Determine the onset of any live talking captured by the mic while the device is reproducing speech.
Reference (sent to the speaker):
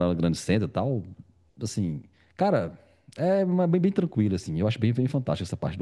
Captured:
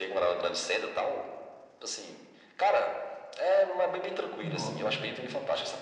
4.4 s

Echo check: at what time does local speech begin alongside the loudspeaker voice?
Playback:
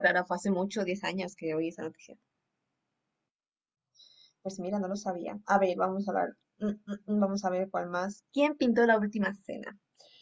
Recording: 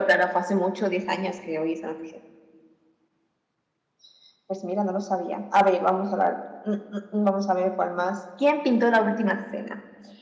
none

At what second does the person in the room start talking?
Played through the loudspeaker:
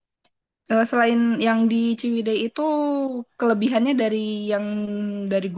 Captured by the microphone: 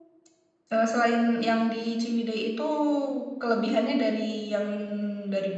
none

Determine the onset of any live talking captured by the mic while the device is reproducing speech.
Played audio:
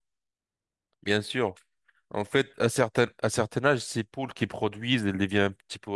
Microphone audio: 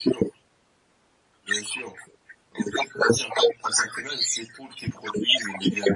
none

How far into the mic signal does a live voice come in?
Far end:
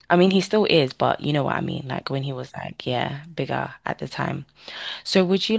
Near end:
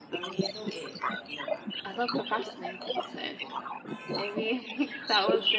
1.8 s

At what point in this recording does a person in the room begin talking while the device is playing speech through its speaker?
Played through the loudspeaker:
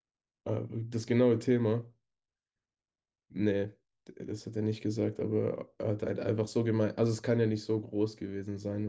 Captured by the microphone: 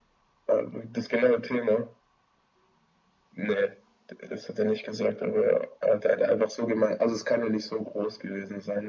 none

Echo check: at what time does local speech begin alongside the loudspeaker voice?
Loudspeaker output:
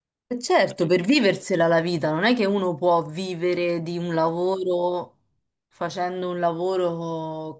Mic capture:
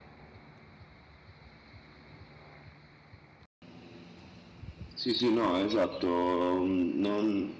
4.9 s

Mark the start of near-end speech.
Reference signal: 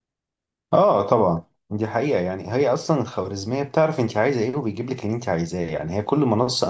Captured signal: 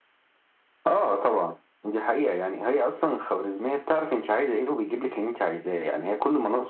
none

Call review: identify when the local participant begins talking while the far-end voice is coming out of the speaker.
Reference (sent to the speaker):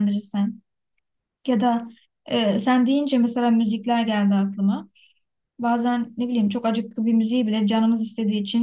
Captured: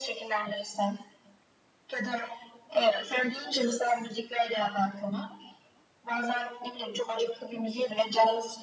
none

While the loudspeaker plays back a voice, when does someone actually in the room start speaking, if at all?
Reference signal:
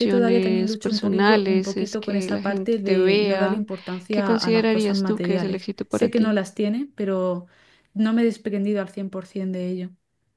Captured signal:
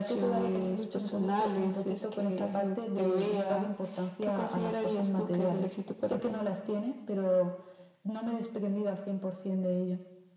none

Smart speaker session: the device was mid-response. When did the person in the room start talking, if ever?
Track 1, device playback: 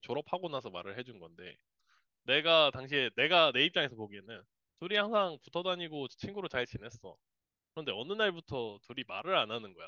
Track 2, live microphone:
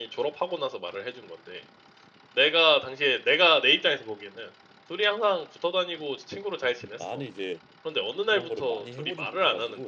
6.9 s

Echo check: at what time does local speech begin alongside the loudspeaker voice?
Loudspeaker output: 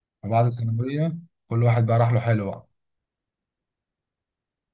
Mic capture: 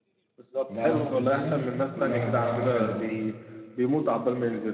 0.4 s

